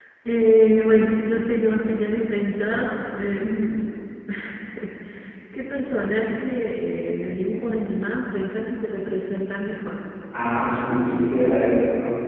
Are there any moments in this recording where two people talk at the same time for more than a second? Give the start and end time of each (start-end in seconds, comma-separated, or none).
none